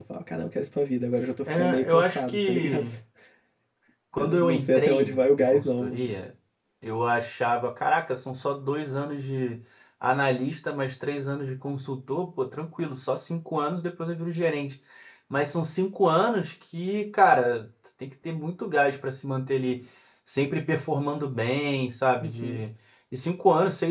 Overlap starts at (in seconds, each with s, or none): 1.5 s